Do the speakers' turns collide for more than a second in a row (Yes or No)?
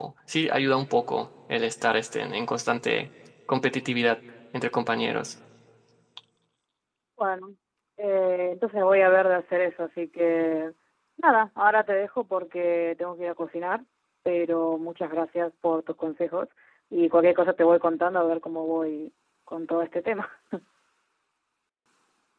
No